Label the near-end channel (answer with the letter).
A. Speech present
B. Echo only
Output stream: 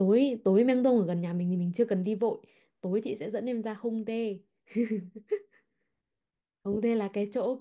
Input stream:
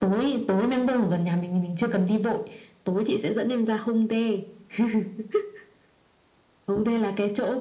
B